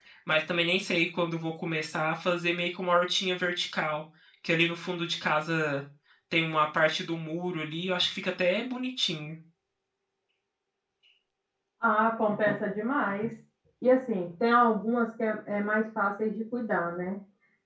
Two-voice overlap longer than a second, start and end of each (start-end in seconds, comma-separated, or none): none